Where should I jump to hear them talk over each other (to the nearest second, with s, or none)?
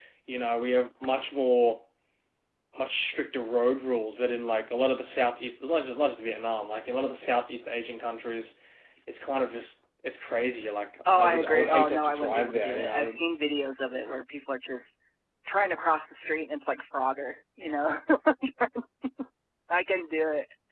11 s